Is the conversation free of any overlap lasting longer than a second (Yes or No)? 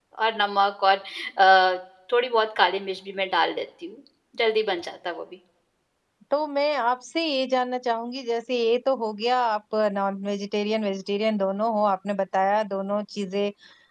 Yes